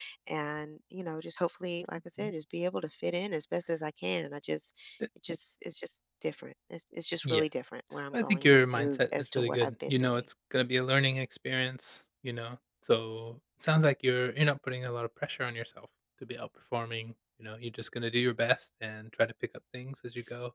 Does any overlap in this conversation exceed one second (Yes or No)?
Yes